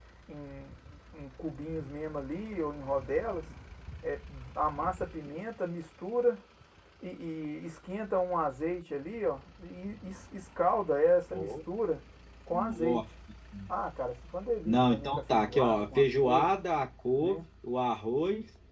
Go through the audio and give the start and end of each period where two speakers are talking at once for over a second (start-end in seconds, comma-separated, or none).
14.6-16.5